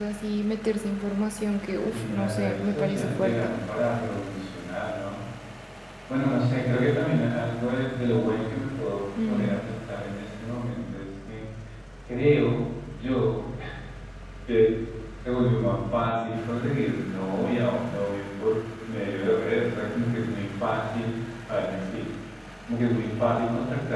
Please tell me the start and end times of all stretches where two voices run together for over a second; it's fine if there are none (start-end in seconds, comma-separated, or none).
1.9-3.5